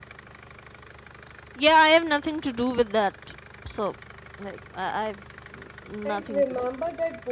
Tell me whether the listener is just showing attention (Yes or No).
No